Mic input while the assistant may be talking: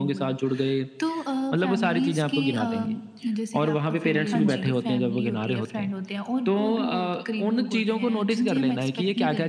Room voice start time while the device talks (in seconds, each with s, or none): 4.3 s